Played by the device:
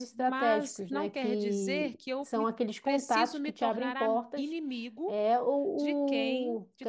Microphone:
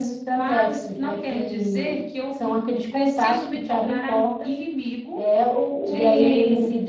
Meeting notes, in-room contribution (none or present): present